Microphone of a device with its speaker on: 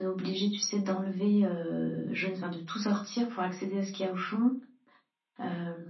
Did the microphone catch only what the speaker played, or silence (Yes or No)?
Yes